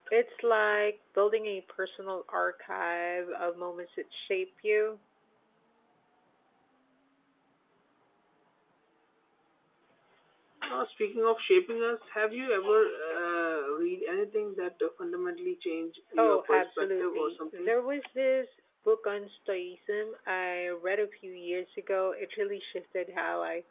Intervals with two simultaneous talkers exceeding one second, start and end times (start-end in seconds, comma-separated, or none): 16.2-17.7